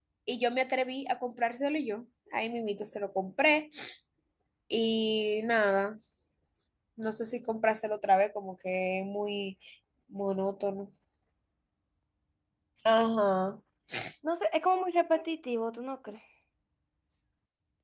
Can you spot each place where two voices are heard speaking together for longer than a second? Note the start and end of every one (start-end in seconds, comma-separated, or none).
none